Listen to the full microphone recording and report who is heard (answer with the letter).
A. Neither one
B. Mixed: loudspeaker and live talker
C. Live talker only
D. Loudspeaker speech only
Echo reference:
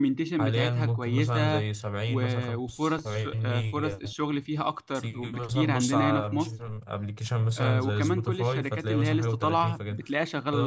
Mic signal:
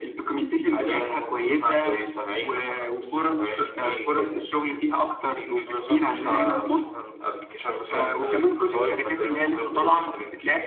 D